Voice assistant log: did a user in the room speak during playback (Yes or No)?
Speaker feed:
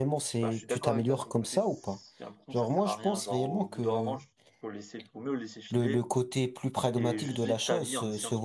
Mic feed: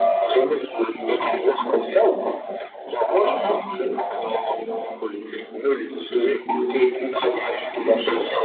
No